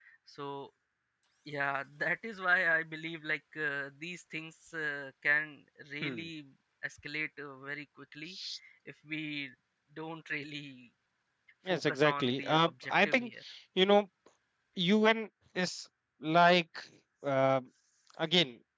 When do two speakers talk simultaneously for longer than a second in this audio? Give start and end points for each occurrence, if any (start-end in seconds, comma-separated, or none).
11.7-13.3